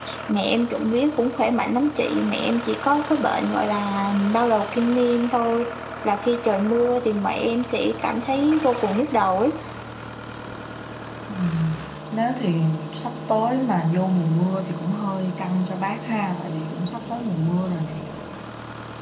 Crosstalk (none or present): none